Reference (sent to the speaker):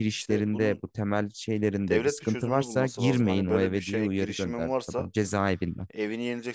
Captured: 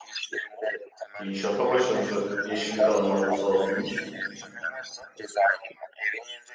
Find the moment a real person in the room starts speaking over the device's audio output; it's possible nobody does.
1.2 s

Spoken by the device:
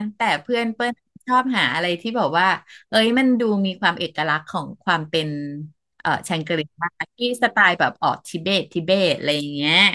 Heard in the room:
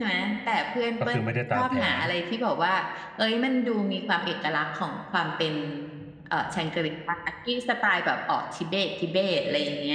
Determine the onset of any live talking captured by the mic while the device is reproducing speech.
1.0 s

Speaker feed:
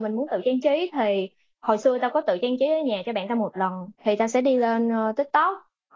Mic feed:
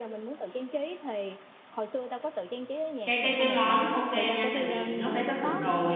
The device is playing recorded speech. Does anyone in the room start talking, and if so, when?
3.0 s

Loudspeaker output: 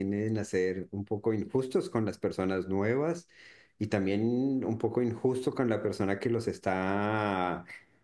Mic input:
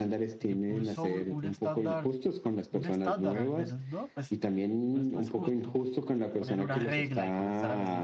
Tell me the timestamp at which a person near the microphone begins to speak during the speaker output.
0.5 s

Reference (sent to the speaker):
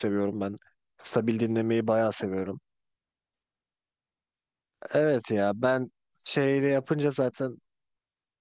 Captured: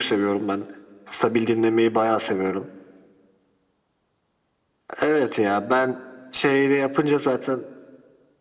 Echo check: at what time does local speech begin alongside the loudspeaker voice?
none

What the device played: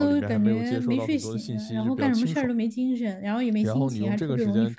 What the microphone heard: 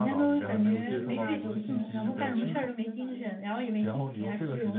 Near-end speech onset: 0.4 s

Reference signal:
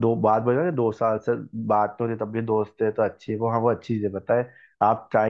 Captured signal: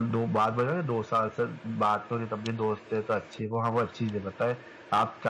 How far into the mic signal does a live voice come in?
none

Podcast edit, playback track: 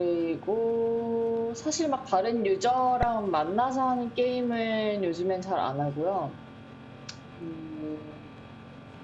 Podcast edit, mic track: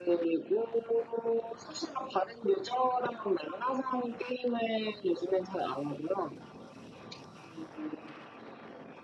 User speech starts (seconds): none

